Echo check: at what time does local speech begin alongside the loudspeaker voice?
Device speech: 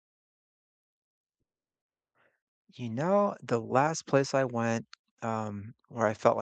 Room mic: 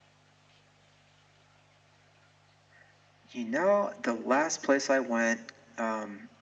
none

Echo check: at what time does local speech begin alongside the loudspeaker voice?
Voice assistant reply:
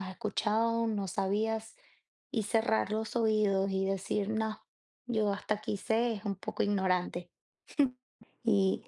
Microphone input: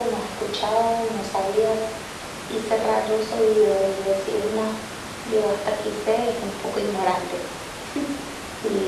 none

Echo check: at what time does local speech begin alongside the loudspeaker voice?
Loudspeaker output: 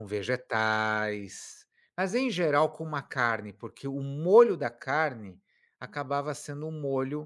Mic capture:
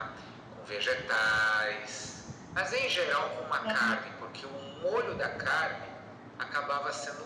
4 s

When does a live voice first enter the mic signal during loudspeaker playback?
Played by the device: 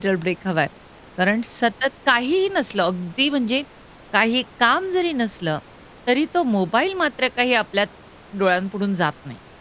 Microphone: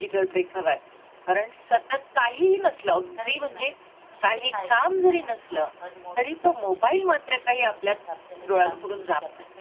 3 s

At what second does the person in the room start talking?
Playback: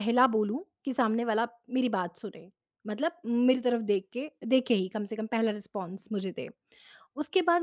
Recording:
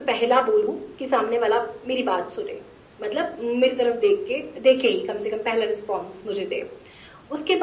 none

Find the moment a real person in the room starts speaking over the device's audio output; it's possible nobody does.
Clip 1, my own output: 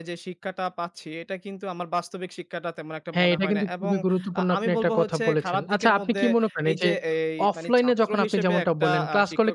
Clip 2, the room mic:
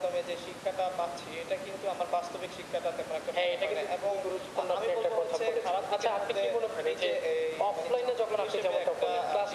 none

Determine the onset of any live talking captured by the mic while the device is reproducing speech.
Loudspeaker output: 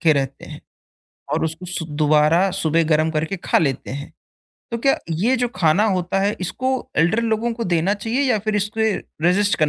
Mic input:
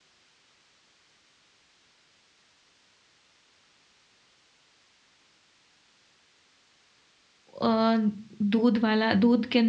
8 s

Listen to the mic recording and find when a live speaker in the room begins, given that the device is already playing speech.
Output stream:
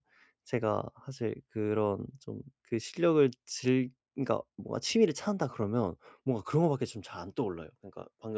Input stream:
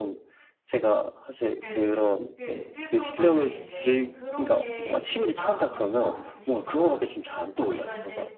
2 s

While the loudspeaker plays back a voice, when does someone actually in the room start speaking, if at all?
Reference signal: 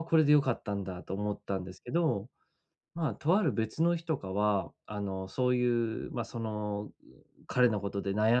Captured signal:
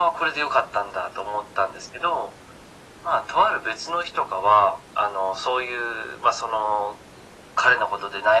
none

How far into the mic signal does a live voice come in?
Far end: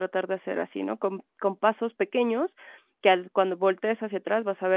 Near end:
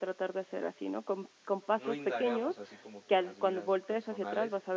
2 s

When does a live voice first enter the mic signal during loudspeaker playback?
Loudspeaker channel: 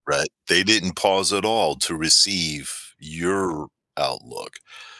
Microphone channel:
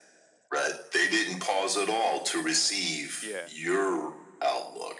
3 s

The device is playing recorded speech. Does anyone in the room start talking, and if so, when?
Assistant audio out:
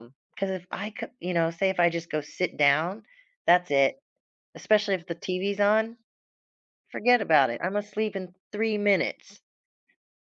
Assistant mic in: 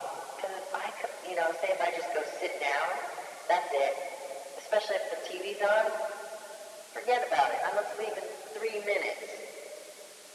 none

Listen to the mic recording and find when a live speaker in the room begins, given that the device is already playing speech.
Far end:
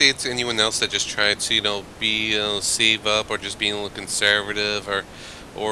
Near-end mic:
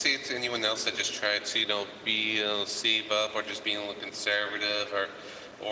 none

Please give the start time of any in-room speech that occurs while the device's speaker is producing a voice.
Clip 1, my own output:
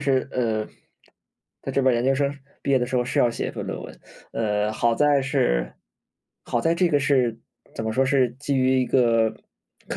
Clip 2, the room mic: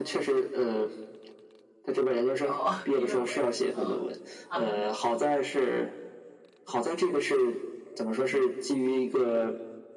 2 s

